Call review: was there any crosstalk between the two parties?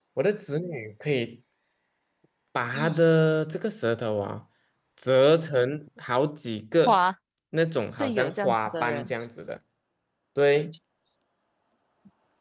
Yes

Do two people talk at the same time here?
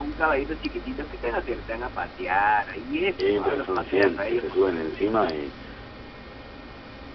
Yes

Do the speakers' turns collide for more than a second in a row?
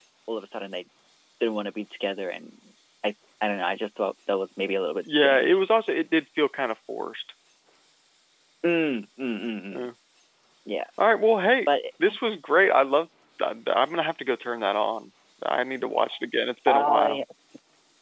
No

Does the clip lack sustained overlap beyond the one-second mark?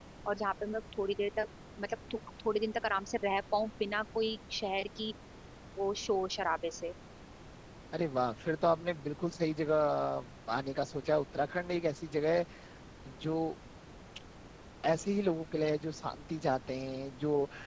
Yes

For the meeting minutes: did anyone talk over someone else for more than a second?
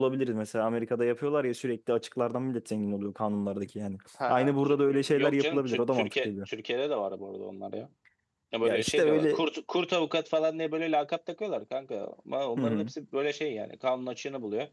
Yes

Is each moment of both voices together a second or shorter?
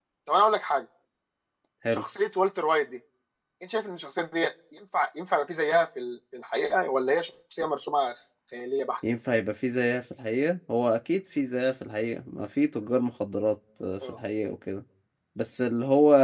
Yes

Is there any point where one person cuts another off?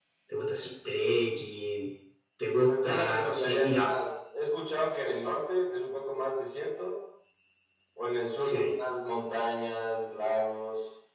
Yes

